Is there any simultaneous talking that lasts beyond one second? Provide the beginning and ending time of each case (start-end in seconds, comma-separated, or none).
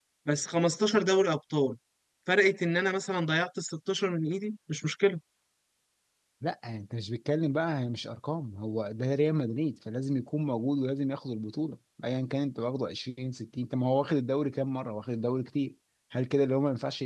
none